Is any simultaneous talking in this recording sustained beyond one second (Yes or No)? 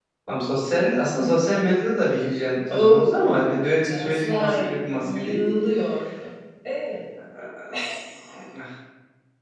Yes